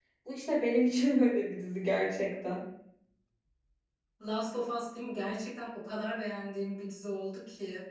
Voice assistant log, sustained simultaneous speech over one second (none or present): none